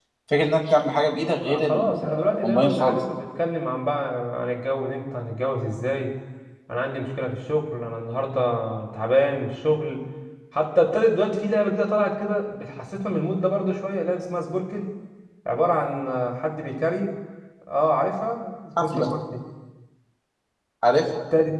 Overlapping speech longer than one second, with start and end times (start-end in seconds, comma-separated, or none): 1.4-3.0